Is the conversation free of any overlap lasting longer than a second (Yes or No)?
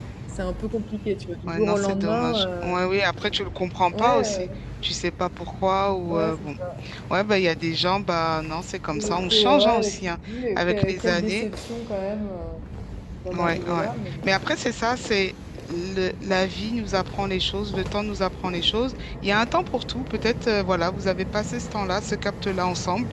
No